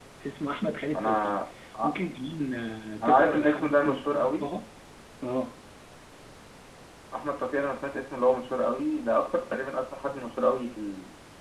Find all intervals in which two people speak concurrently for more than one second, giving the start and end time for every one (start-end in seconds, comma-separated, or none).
3.0-4.5